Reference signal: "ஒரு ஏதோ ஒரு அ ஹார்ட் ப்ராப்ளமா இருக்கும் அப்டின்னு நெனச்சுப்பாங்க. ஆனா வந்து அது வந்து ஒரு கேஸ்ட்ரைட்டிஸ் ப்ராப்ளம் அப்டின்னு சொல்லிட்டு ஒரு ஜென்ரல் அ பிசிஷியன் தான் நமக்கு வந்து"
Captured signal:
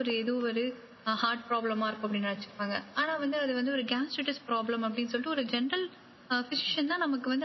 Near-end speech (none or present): none